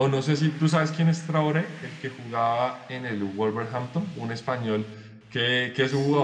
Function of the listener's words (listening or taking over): listening